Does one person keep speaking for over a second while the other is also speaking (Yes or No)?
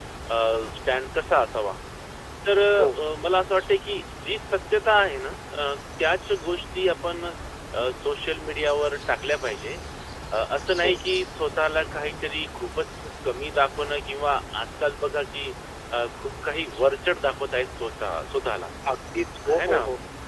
No